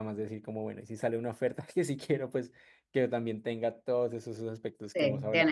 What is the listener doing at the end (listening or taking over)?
taking over